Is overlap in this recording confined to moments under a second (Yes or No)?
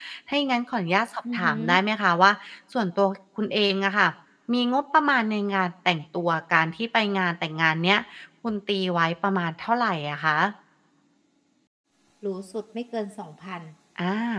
Yes